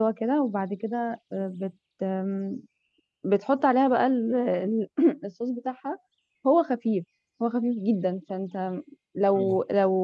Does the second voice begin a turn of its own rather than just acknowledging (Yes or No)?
No